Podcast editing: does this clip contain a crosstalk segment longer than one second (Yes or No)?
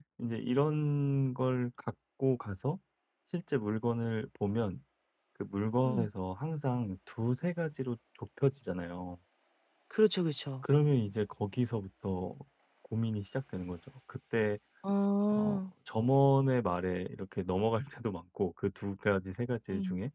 No